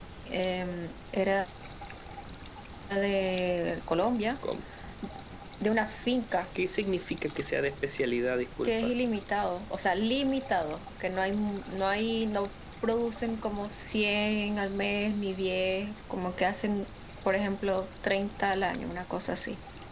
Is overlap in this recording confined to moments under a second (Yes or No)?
Yes